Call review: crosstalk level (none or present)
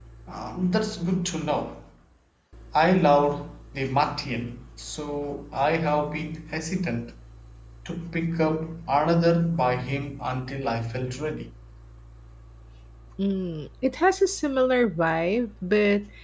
none